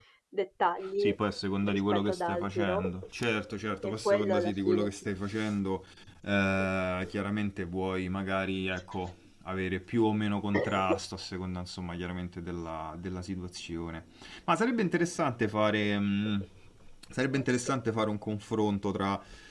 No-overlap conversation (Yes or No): No